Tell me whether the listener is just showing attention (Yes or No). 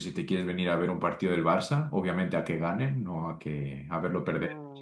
No